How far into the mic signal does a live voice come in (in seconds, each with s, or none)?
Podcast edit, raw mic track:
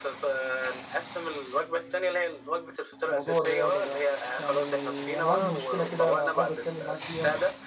3.0 s